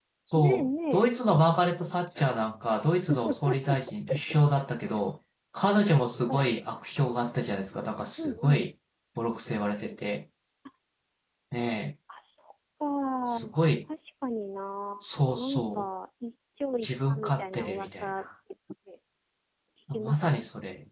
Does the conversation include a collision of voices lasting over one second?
Yes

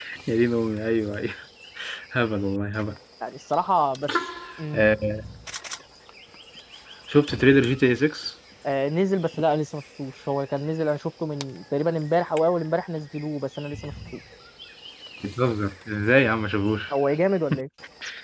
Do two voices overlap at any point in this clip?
No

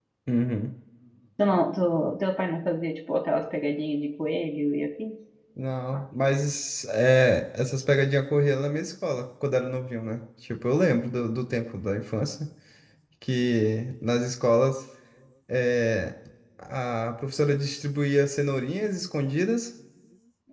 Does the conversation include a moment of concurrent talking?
No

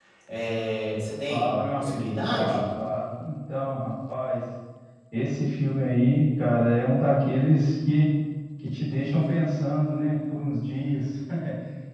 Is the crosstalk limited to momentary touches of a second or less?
No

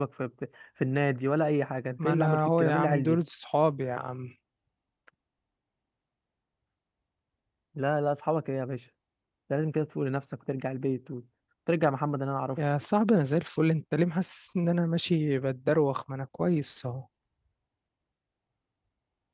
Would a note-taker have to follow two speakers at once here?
Yes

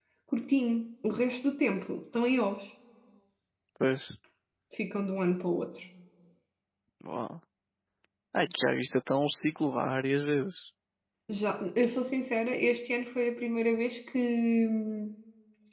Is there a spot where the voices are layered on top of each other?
No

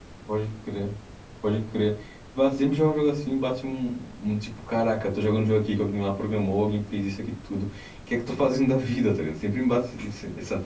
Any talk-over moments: No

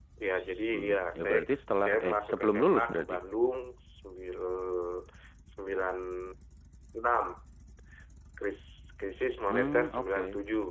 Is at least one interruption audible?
Yes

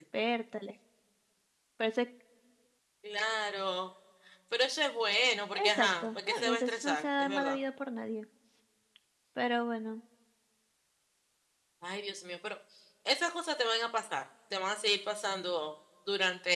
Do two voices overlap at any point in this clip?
Yes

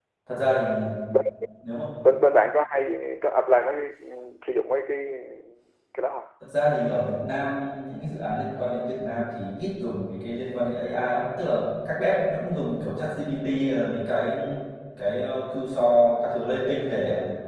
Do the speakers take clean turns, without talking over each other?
Yes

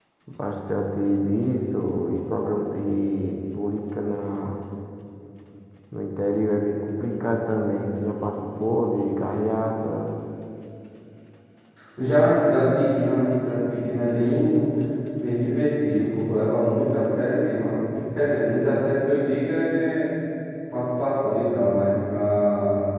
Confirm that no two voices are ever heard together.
Yes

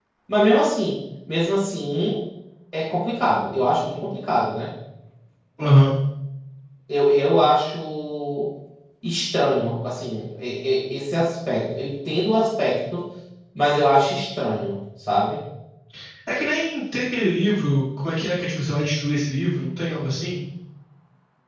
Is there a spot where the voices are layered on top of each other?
No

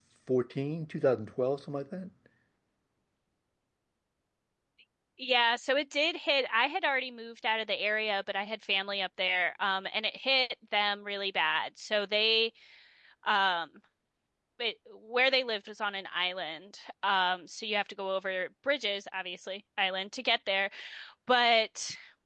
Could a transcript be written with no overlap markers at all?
Yes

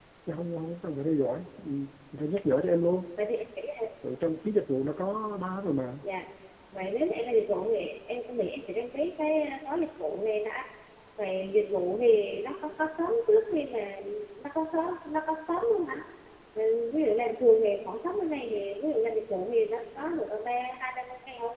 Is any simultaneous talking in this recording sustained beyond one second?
No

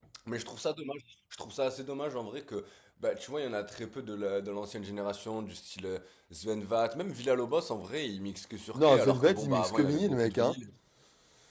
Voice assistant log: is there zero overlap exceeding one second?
No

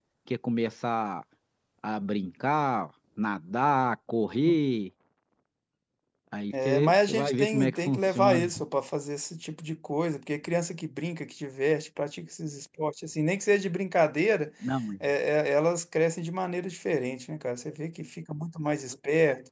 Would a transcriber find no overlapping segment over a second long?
No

